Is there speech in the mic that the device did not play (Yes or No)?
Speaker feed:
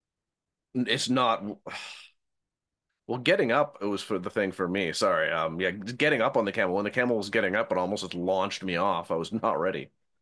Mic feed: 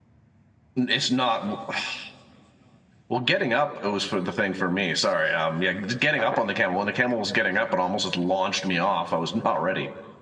Yes